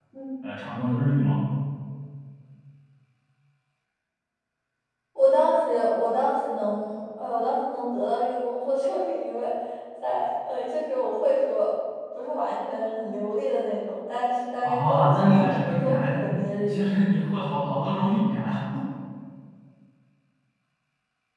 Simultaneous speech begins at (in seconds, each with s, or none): 14.6 s